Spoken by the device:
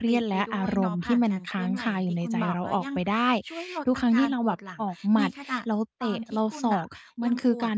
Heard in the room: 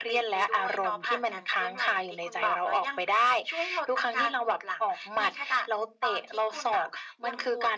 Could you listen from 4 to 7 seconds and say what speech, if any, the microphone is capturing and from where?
echo only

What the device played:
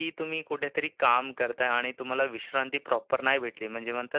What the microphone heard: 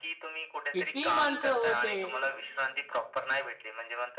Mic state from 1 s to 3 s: both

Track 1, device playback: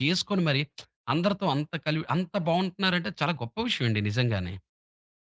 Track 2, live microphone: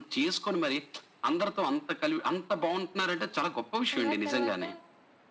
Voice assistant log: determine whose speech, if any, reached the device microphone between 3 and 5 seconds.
both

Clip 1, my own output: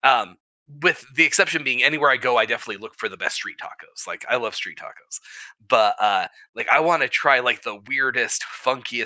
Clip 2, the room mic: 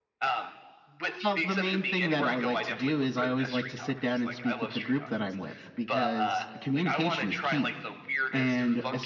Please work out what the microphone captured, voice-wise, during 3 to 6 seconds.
both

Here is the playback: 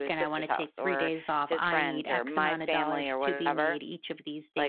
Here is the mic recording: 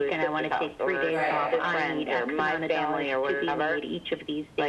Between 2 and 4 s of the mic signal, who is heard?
echo only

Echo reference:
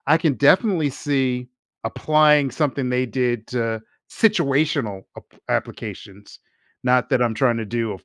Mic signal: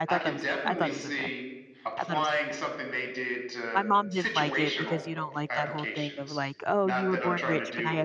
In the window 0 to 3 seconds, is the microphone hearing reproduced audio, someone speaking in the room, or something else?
both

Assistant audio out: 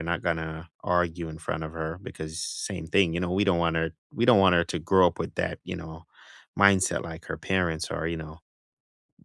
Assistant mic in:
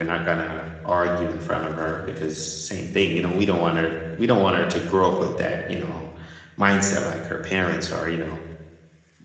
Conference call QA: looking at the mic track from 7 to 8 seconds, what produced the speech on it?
echo only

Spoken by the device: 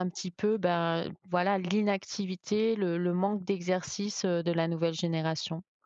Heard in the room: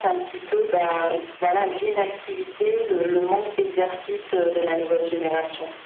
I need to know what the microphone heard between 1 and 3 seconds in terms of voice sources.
echo only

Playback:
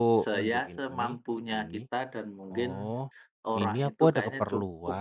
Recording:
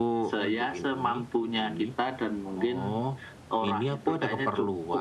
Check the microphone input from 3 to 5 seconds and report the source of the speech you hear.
echo only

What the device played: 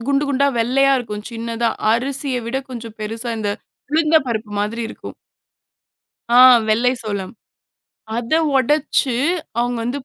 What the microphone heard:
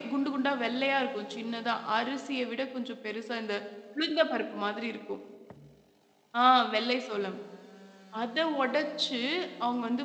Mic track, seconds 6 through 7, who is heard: echo only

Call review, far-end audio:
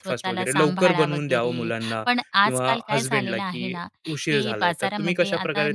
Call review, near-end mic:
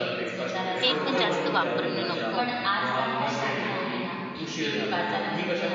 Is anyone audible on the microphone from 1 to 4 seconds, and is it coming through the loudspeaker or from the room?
both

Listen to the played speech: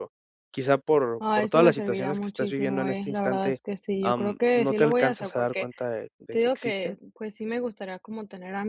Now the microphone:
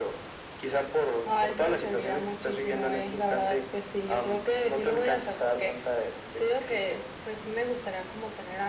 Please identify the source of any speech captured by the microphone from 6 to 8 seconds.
echo only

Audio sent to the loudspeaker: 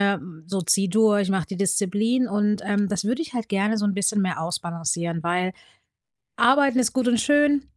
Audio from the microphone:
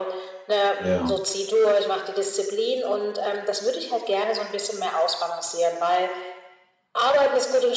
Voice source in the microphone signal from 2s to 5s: echo only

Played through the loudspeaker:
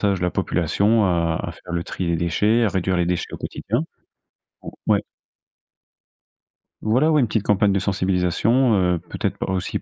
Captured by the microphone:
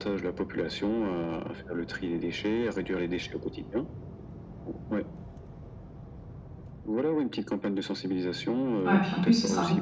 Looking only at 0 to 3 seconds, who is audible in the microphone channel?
echo only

